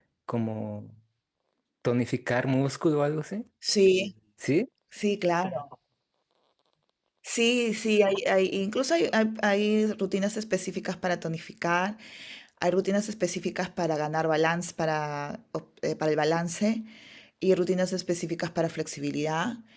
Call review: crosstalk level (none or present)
none